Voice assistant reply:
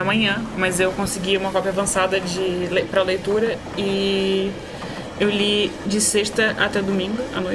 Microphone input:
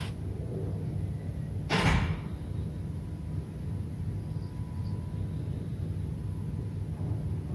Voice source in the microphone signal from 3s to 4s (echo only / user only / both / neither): neither